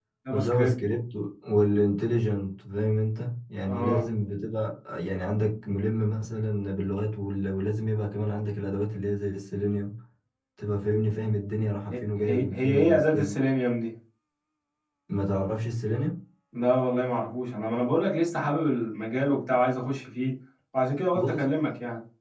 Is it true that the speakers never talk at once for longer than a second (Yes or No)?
No